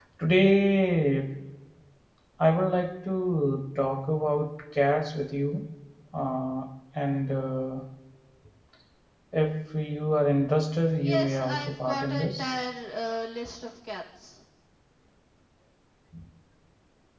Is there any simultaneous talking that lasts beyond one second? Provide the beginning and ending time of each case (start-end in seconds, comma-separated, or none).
11.0-12.5